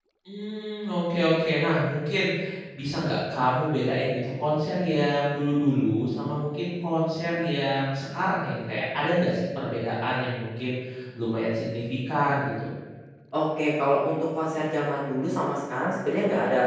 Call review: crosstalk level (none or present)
none